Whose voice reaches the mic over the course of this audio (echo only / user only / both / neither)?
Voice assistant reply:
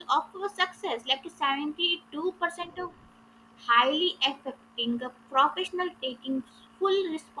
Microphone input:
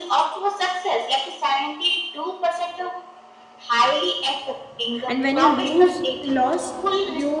both